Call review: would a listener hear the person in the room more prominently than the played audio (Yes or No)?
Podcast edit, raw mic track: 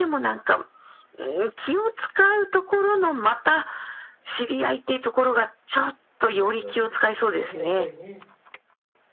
No